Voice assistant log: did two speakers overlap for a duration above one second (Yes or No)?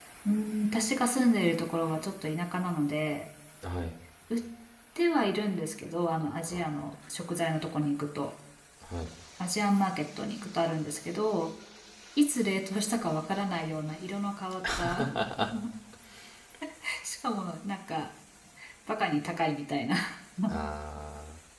No